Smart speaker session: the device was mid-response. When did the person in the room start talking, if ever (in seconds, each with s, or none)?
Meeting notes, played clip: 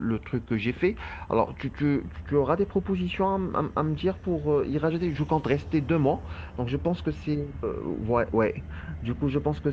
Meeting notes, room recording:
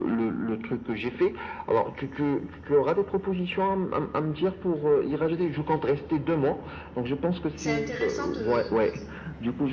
7.6 s